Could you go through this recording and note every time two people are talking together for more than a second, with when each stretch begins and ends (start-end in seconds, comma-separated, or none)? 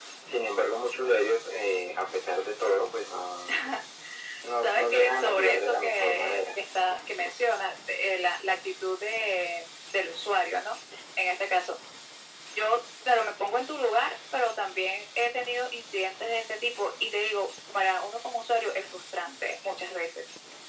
4.6-6.6